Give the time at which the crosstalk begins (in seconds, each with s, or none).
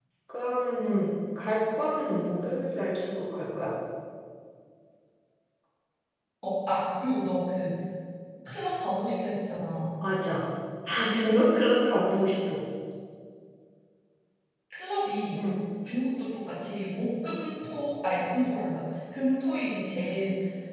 none